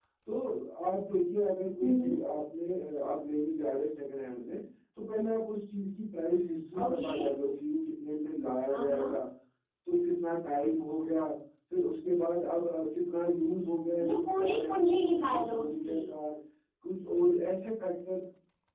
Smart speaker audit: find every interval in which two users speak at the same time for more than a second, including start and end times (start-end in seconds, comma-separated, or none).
14.0-16.0